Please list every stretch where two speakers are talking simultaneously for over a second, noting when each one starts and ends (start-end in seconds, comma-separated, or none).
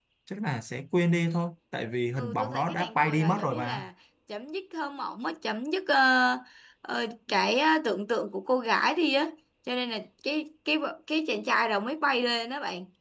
2.2-3.9